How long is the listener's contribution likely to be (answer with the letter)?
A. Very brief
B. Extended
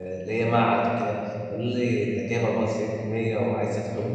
A